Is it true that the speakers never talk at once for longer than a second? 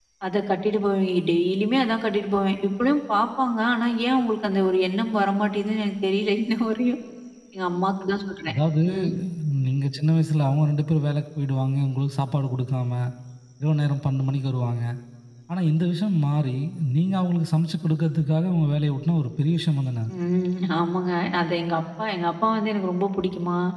Yes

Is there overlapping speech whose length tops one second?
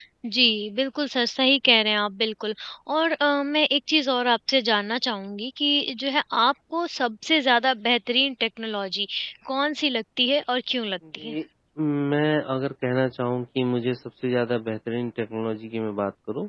No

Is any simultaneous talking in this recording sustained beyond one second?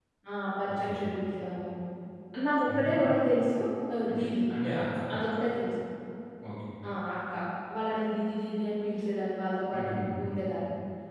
No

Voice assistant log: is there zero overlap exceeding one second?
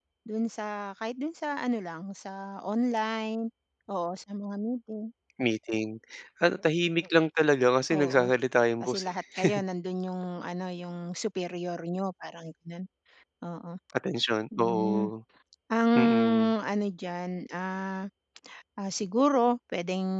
Yes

